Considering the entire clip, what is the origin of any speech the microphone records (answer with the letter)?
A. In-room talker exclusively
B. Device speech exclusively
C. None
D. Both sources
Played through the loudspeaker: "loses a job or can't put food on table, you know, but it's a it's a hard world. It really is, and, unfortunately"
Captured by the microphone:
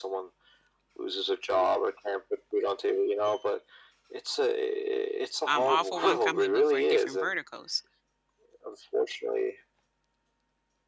D